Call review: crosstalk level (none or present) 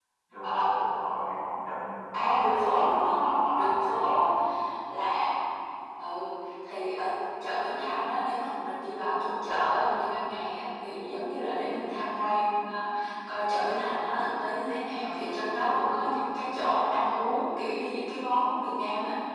present